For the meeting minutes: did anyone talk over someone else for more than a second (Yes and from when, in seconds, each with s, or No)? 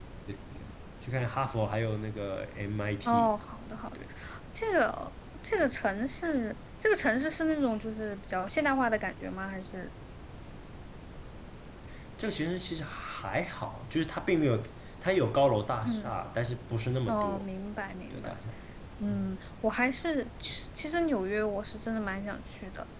No